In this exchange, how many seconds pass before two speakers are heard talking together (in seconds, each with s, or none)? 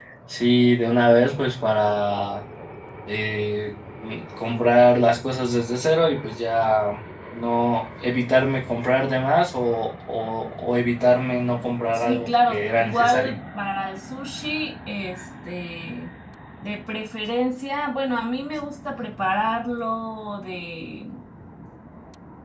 11.9 s